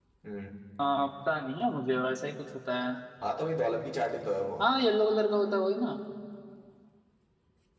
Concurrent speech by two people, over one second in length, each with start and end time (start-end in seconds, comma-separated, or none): none